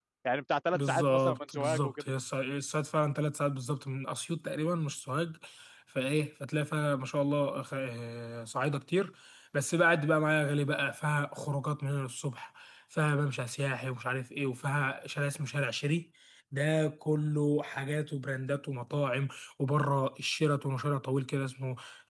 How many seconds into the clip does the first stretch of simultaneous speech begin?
1 s

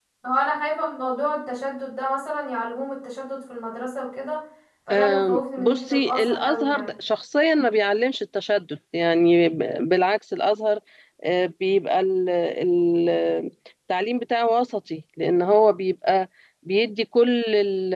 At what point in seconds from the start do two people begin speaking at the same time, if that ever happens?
5 s

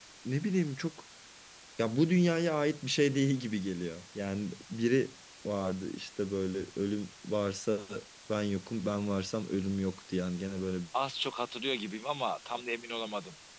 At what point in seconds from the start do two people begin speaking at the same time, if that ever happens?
none

